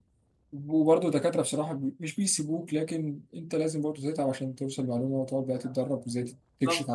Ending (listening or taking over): listening